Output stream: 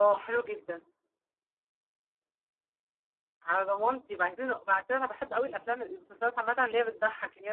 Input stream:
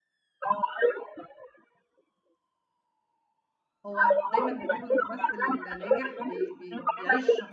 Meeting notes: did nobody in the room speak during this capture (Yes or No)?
No